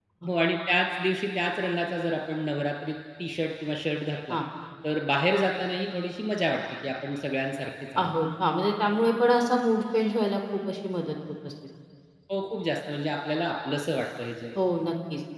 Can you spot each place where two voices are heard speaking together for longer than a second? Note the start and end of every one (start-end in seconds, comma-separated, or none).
none